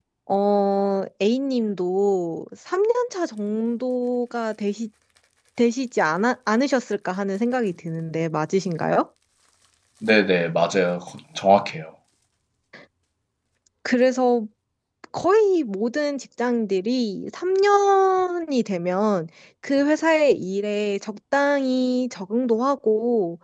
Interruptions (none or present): none